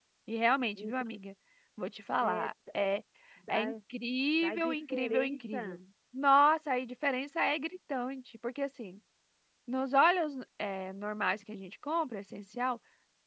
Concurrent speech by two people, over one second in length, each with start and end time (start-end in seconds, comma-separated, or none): 4.4-5.8